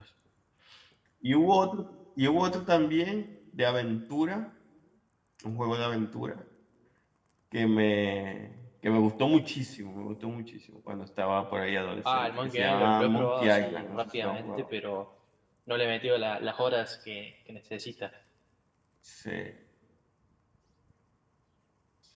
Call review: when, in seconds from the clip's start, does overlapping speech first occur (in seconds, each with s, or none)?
12.1 s